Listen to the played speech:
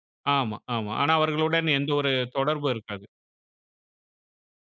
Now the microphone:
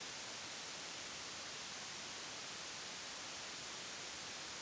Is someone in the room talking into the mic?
No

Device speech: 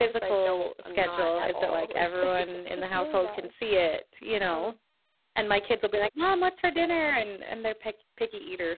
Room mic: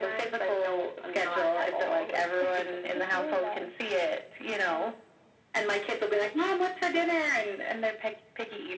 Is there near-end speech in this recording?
No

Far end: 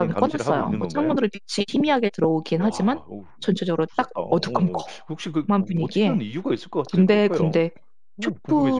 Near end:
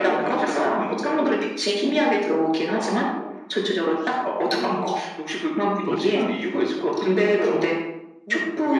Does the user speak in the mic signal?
Yes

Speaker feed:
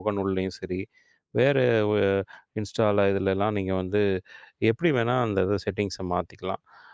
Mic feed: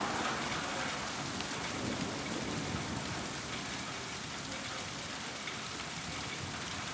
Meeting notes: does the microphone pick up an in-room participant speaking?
No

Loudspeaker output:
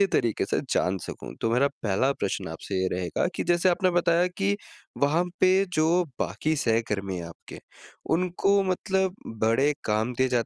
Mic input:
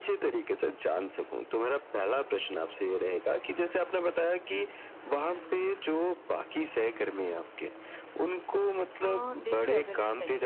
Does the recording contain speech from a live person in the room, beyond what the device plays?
Yes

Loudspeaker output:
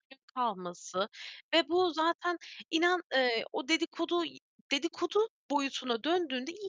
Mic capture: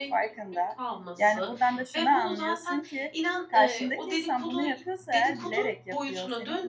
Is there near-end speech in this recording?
Yes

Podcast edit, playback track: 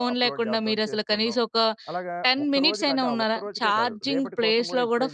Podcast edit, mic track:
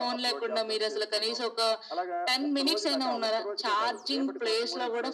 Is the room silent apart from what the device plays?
Yes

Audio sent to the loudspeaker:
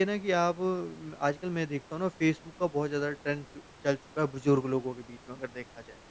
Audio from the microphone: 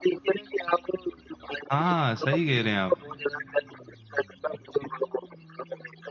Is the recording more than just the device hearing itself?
Yes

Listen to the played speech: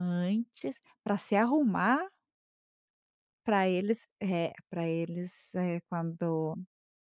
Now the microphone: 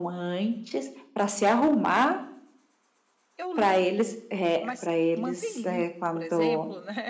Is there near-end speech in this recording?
Yes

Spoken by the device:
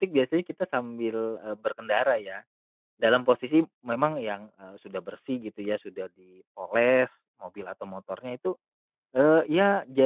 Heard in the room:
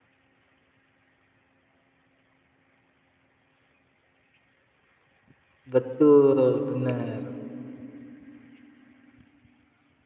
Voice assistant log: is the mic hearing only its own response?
No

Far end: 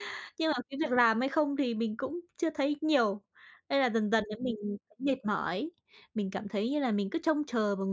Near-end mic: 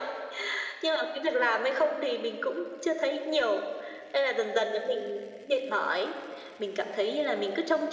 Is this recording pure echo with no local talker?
Yes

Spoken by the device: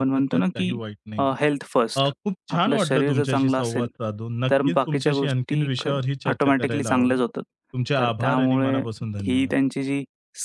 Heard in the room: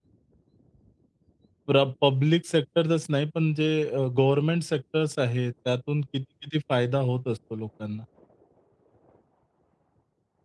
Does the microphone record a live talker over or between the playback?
Yes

